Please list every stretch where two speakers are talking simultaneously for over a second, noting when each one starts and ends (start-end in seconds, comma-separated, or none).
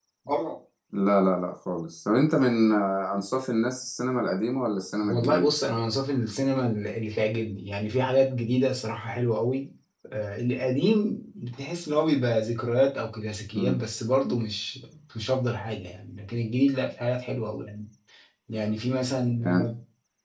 none